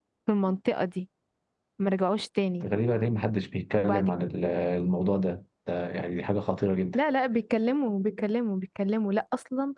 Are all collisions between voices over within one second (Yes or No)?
Yes